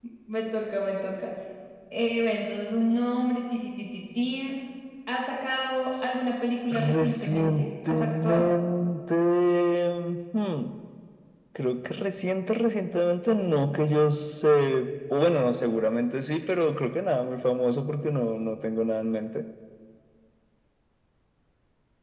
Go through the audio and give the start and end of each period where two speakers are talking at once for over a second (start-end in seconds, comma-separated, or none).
6.7-8.5